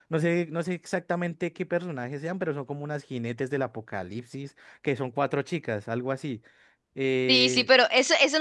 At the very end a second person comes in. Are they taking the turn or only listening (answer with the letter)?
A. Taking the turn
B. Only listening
A